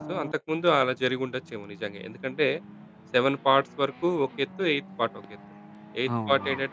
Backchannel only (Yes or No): Yes